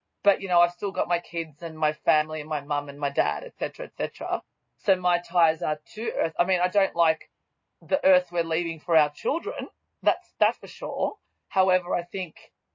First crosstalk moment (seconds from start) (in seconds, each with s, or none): none